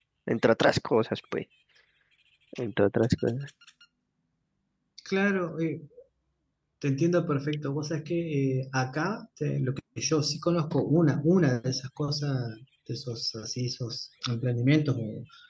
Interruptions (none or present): none